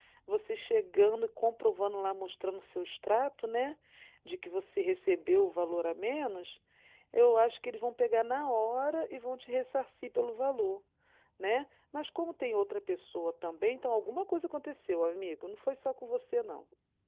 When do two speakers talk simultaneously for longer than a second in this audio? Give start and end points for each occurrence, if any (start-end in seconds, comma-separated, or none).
none